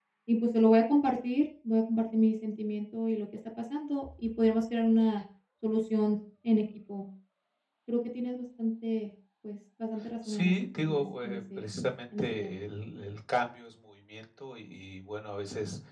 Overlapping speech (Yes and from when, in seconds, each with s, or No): Yes, from 10.2 s